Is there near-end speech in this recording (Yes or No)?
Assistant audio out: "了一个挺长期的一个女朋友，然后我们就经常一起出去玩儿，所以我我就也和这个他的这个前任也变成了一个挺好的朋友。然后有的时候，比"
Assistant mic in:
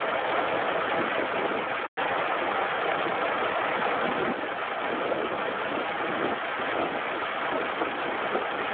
No